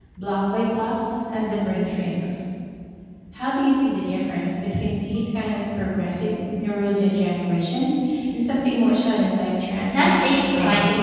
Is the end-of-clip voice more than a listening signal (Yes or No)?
Yes